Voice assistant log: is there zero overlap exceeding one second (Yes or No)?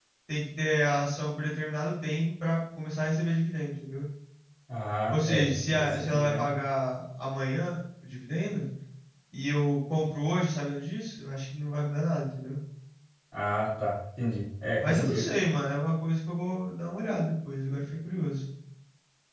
No